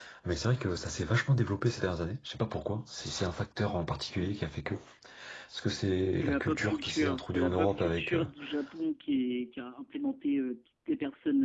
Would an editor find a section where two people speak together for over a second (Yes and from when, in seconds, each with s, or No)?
Yes, from 6.2 s